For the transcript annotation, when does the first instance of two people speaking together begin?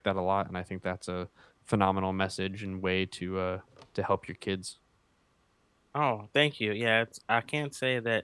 none

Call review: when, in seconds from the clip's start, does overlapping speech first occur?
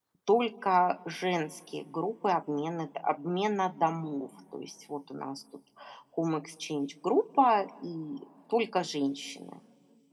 none

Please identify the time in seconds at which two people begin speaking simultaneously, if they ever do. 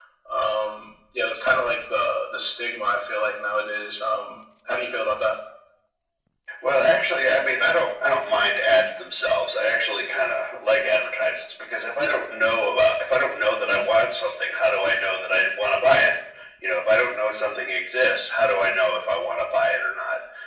none

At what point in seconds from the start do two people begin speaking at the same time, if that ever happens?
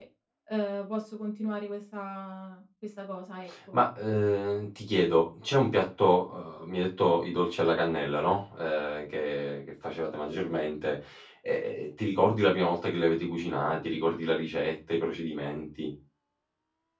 none

